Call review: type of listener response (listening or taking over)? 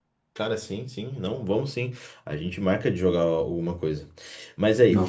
listening